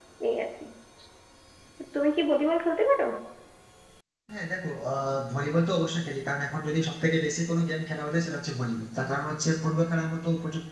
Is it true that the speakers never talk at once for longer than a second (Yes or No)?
Yes